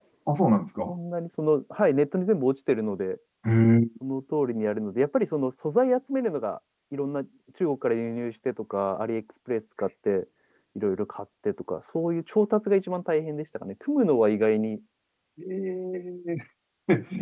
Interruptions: none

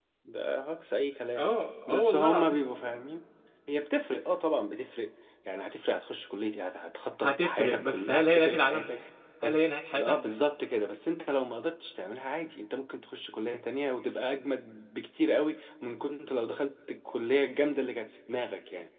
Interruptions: present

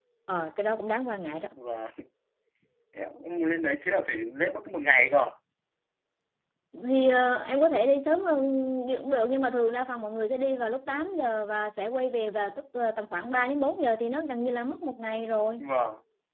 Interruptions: none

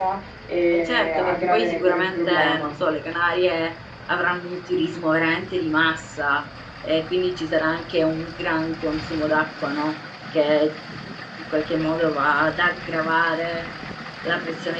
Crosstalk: present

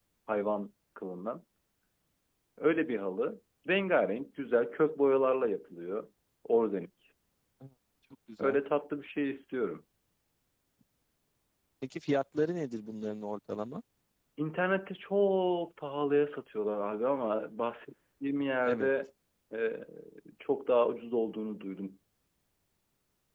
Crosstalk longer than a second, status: none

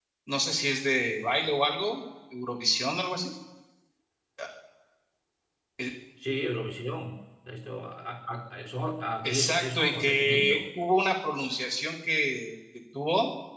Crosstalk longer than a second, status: present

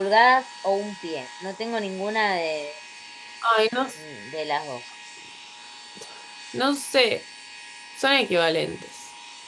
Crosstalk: none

